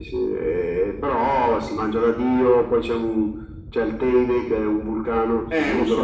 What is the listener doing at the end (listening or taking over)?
taking over